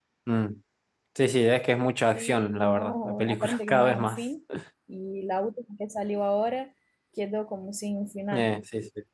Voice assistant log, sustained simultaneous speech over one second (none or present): present